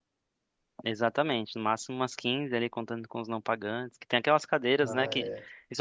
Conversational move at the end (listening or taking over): listening